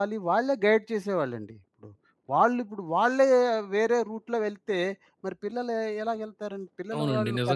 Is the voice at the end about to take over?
Yes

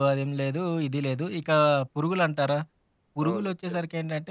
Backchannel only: Yes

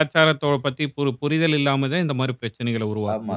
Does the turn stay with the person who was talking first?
No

